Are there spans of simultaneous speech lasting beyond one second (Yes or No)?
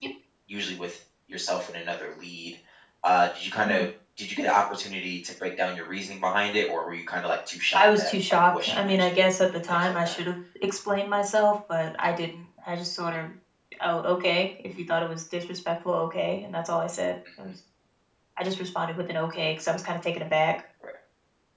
Yes